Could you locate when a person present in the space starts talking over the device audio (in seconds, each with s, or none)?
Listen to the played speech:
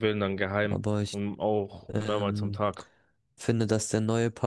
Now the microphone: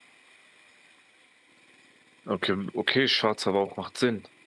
2.2 s